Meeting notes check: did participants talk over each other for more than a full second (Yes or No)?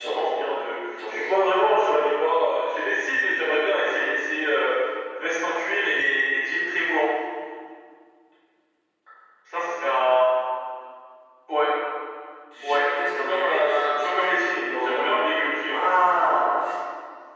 Yes